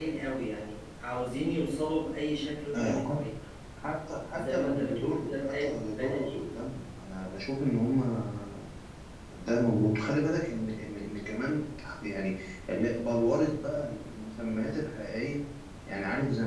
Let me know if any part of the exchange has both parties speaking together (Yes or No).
Yes